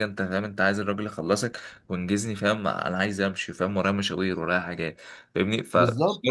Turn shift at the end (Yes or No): No